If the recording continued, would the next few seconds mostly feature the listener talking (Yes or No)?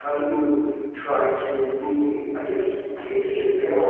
No